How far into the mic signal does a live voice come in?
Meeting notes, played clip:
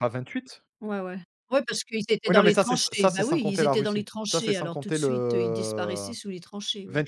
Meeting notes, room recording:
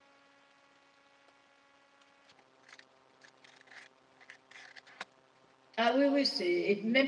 5.8 s

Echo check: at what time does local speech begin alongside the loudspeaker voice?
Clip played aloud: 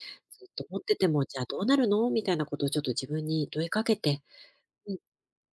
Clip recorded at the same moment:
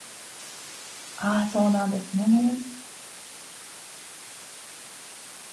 1.1 s

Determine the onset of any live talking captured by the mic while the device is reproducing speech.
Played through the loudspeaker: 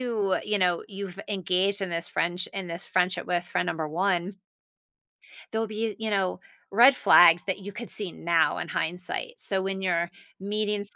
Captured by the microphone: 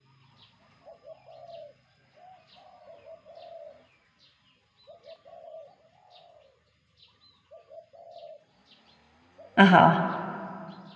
9.6 s

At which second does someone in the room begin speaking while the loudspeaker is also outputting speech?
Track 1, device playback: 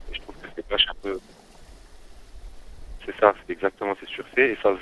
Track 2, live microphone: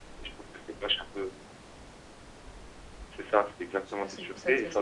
3.8 s

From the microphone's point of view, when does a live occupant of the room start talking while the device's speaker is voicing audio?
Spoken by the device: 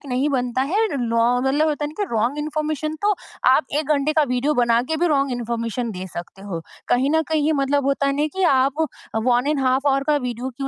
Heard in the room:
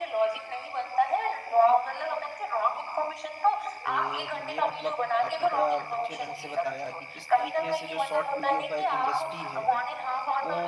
3.9 s

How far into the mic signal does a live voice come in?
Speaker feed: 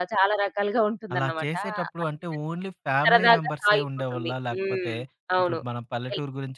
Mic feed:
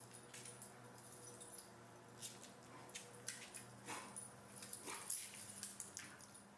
none

